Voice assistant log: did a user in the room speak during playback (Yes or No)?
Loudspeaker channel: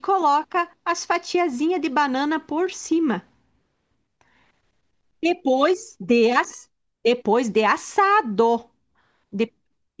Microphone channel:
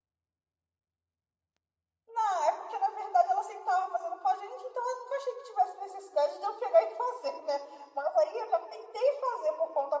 Yes